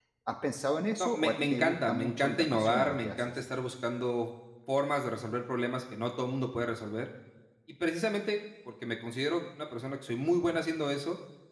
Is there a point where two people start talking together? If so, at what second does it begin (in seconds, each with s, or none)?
1.0 s